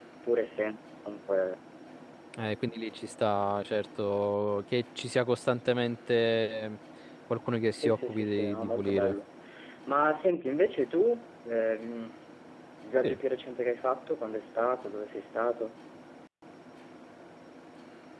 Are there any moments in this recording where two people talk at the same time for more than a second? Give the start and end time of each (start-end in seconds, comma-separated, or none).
7.8-9.2